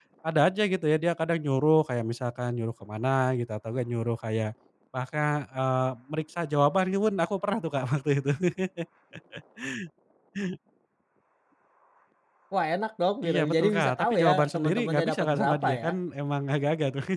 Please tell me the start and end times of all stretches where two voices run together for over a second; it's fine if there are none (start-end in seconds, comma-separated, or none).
13.2-15.9